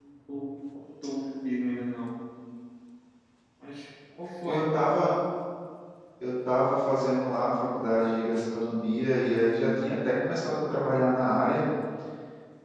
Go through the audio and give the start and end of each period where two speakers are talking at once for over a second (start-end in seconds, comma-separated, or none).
none